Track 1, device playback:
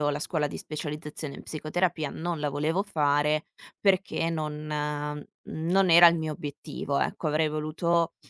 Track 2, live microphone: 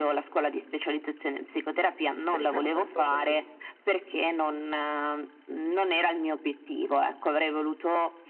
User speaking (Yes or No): Yes